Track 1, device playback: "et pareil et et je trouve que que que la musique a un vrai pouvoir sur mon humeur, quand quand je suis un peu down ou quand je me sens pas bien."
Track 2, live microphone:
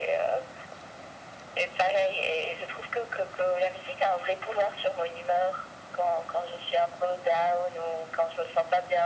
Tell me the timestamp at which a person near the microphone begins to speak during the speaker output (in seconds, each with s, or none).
none